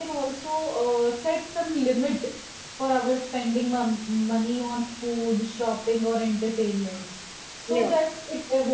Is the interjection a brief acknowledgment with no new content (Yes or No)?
Yes